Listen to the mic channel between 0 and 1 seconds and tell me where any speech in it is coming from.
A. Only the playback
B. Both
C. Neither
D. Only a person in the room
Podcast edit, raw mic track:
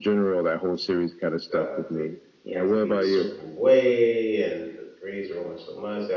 A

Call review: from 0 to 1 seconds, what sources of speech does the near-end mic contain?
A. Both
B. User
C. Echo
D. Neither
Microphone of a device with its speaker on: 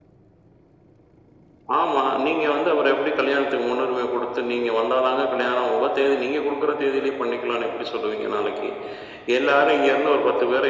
D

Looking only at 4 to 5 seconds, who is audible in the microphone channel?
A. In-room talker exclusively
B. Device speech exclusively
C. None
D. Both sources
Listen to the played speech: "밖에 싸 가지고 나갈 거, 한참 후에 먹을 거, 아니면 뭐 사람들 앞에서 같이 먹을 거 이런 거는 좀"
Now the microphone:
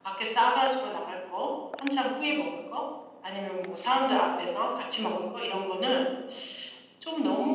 B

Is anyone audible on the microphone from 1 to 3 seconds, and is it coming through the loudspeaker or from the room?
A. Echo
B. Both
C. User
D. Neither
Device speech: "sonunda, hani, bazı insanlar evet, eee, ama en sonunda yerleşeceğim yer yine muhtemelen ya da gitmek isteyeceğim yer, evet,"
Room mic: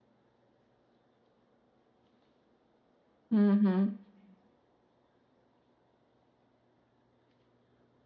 D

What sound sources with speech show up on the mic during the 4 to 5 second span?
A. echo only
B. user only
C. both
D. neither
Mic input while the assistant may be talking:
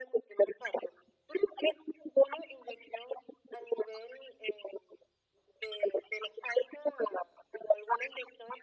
A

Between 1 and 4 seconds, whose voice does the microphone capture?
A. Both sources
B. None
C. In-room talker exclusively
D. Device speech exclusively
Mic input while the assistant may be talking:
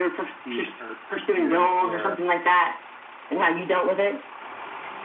A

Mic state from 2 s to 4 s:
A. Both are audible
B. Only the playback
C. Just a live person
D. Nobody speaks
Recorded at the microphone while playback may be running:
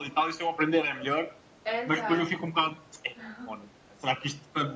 A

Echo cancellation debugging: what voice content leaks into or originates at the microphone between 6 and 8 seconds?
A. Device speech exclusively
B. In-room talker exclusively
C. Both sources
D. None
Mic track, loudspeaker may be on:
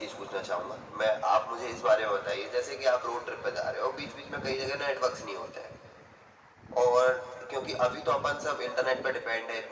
A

